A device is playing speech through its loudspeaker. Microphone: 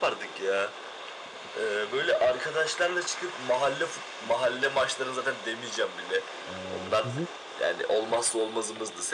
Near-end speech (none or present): present